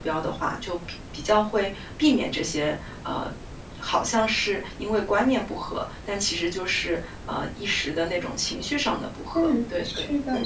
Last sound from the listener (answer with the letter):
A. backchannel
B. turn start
B